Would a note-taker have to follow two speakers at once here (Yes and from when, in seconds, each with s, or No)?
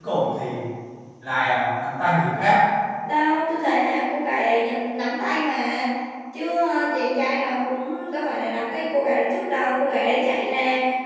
No